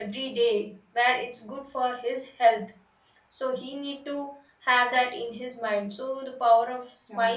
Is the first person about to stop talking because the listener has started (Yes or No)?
No